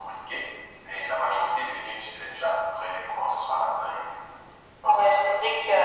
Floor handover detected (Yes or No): Yes